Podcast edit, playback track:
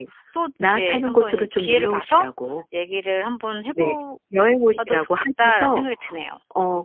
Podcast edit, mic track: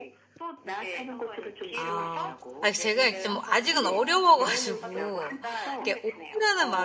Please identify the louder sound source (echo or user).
user